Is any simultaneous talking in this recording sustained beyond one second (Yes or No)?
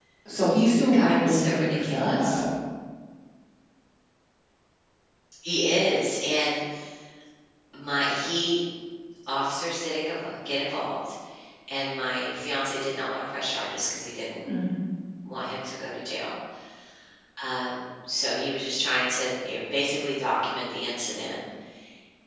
Yes